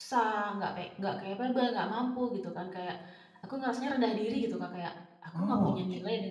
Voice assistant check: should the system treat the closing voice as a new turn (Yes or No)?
No